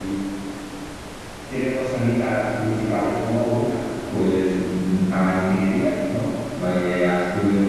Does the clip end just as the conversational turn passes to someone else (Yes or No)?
No